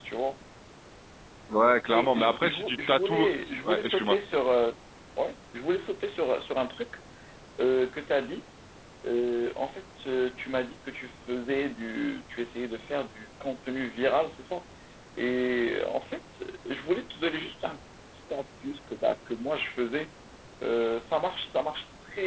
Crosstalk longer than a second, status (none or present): present